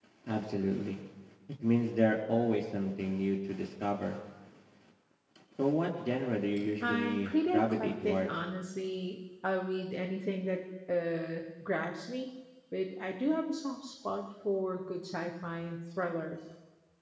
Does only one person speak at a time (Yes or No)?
No